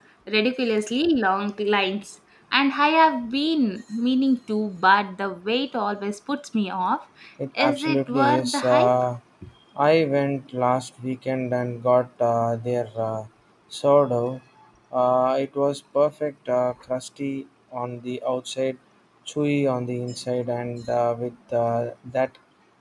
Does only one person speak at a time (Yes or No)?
No